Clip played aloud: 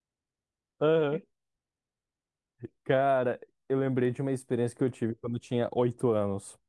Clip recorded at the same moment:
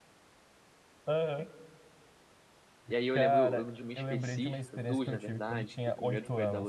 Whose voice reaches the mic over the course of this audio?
both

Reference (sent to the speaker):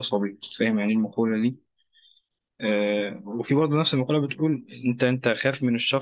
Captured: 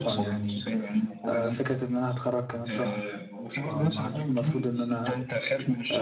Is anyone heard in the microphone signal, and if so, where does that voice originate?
both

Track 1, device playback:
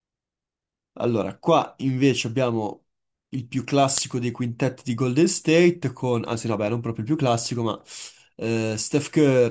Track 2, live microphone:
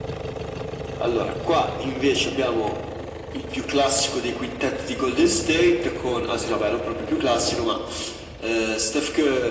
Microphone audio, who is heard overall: echo only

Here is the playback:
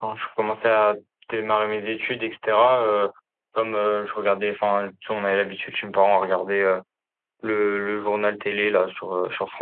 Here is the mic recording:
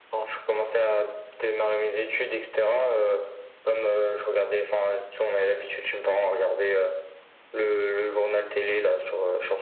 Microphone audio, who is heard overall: echo only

